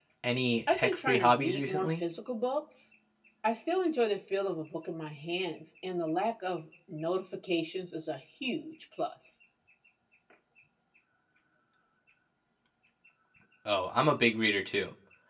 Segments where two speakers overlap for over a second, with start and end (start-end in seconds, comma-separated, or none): 0.7-2.0